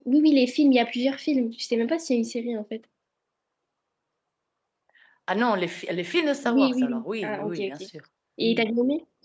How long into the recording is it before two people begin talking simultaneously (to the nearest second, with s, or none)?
6 s